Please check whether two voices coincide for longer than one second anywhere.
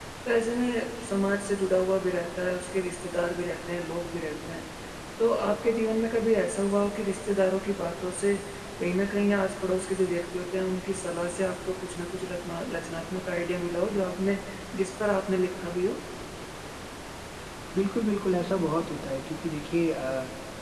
No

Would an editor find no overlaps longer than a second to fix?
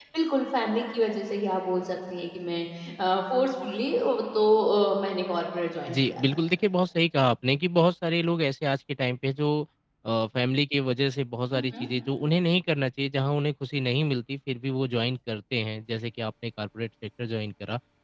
Yes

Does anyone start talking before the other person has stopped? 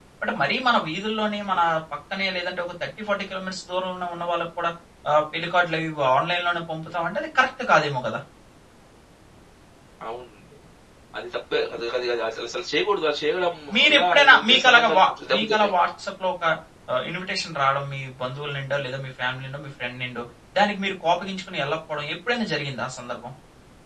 Yes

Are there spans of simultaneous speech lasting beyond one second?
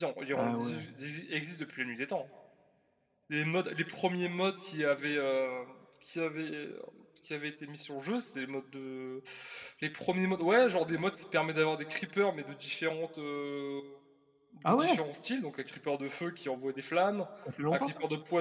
No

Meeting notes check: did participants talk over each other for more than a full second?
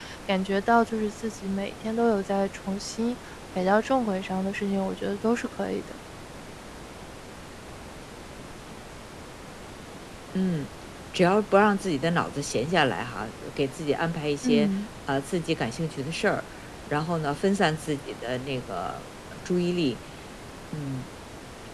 No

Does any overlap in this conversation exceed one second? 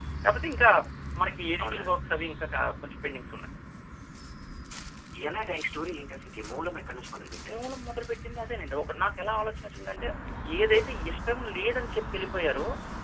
No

